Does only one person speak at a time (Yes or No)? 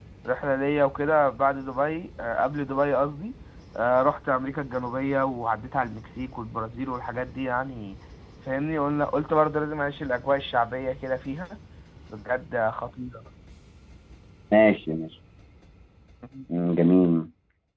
Yes